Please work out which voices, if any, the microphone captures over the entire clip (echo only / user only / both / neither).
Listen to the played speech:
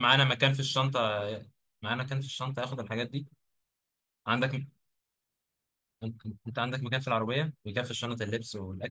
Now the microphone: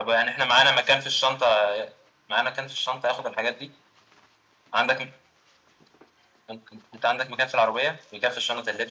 echo only